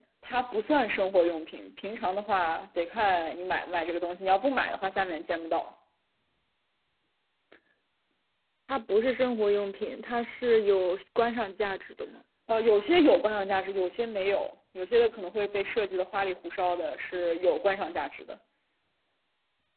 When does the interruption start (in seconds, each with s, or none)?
none